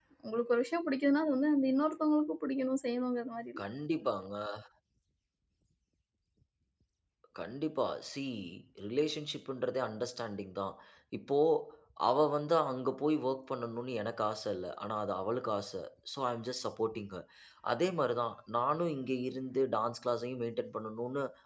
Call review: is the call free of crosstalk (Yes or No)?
Yes